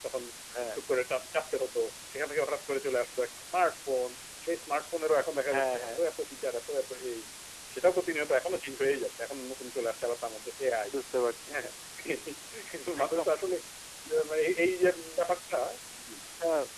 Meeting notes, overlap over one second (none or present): none